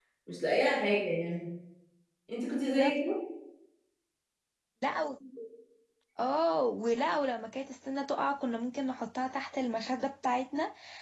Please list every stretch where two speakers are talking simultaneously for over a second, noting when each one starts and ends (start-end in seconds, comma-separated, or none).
none